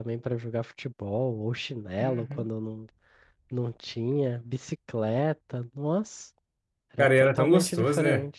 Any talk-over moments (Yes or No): Yes